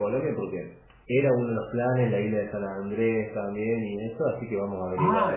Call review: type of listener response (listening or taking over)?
taking over